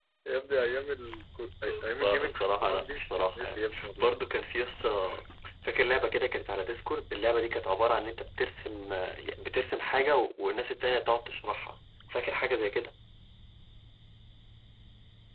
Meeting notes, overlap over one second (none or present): present